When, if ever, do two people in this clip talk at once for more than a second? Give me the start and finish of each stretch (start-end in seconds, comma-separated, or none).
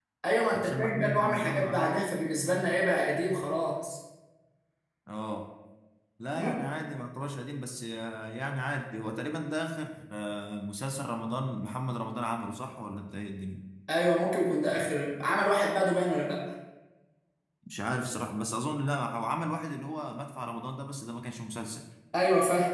0.5-1.9